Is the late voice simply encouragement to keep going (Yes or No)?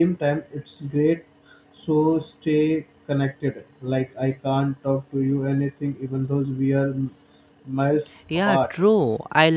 No